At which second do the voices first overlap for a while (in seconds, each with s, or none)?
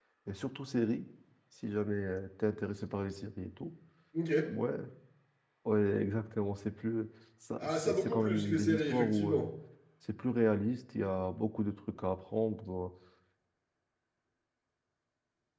7.6 s